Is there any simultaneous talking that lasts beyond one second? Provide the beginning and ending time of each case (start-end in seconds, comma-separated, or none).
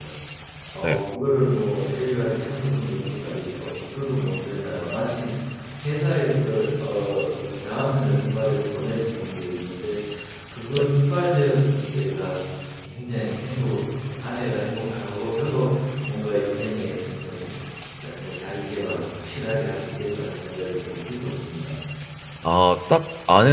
none